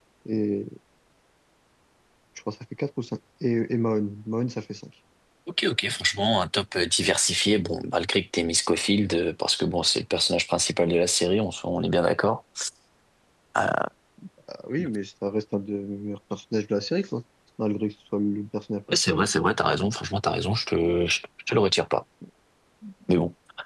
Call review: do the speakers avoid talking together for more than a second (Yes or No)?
Yes